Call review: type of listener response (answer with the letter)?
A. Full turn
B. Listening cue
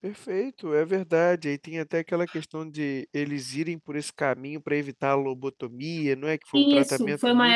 A